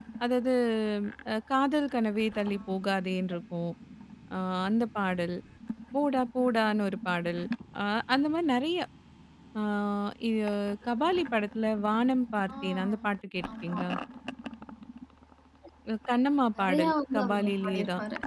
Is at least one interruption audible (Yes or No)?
Yes